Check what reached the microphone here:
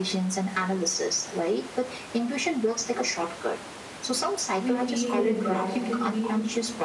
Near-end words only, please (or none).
we feel the reaction between